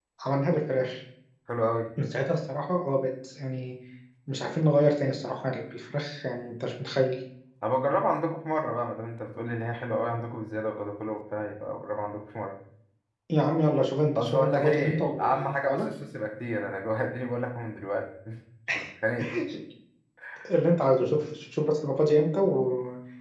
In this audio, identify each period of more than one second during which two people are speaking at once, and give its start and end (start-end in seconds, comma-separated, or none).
14.2-15.8